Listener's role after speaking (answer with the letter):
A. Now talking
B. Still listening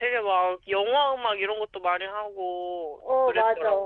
A